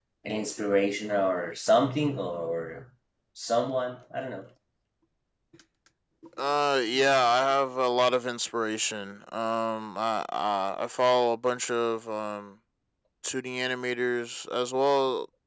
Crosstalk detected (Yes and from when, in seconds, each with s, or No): No